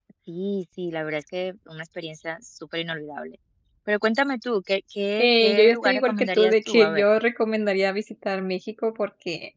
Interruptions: present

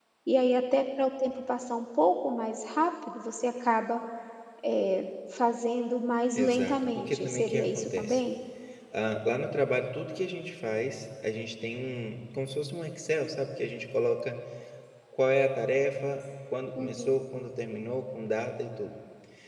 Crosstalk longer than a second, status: present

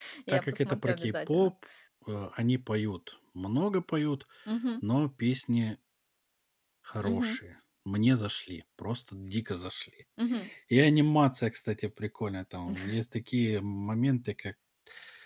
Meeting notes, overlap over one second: present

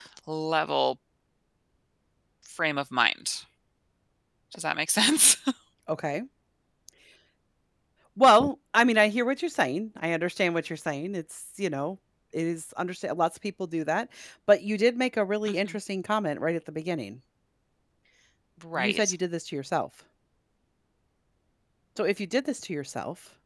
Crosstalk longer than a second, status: none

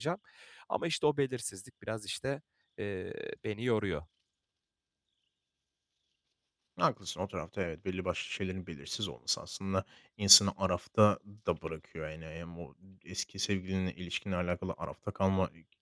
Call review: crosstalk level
none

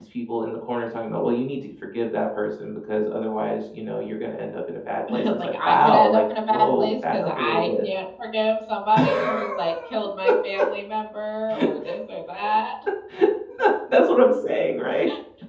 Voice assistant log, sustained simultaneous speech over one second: present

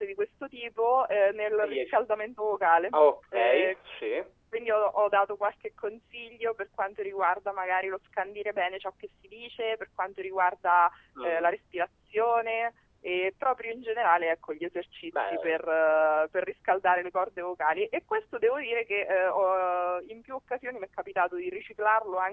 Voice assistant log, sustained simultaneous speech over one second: none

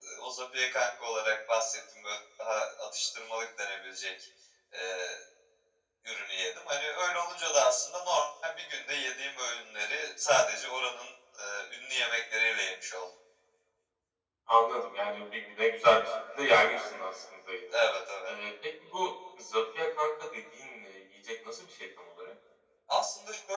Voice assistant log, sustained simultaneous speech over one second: none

